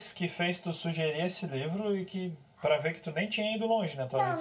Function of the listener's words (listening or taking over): taking over